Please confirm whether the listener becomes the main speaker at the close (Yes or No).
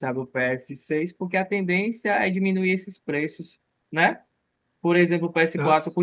No